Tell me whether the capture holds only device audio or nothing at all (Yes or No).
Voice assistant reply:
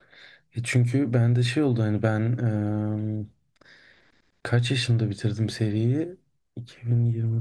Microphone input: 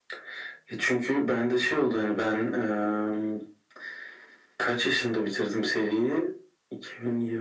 Yes